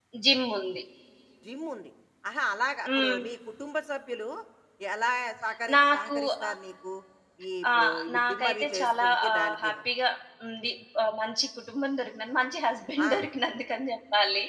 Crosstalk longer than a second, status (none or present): present